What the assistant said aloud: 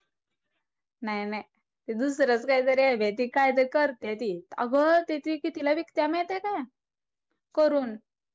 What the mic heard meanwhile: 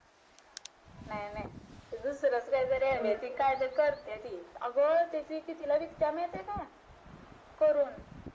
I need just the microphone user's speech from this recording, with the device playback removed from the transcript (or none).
ह.